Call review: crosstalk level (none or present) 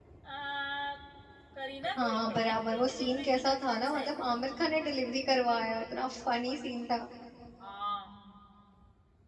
present